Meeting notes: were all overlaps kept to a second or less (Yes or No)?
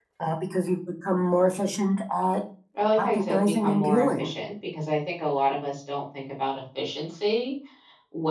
No